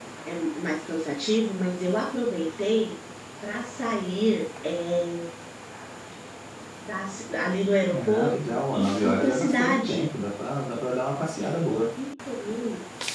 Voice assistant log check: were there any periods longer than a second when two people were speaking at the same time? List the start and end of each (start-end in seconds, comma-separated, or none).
7.9-10.0